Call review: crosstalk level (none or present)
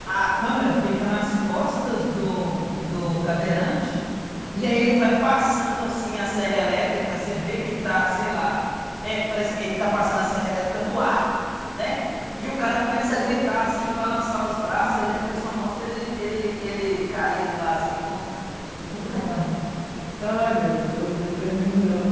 none